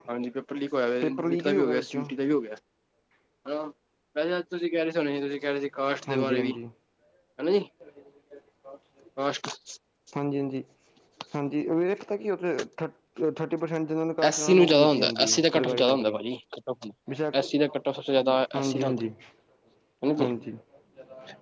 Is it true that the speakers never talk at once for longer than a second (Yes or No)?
No